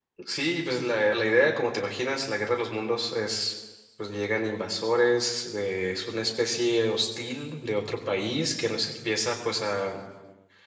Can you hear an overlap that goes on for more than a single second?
No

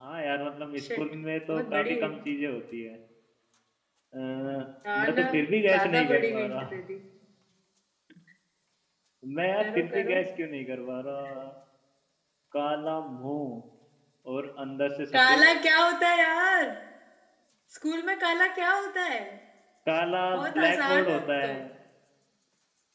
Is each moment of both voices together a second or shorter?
No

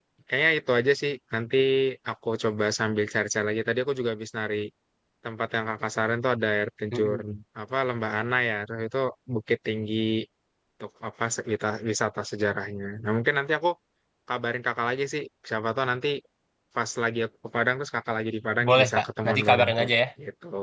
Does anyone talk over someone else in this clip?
Yes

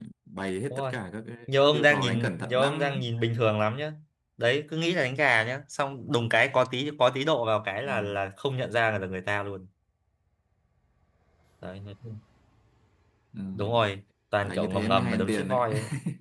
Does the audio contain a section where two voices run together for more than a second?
Yes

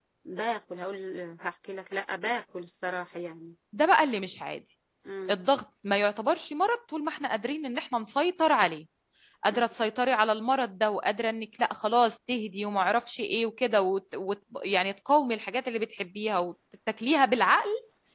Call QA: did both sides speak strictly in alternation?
Yes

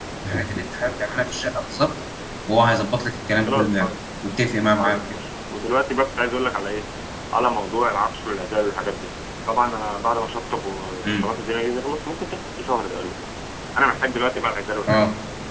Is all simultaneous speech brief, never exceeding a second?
Yes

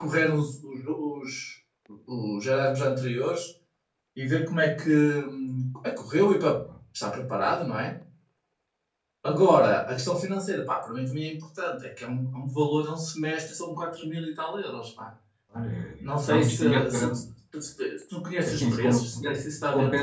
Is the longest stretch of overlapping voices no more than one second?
No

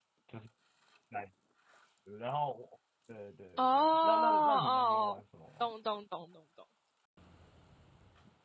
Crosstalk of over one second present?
Yes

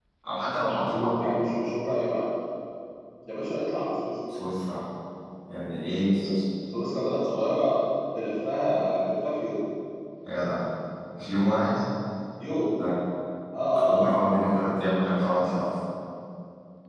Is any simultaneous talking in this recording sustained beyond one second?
No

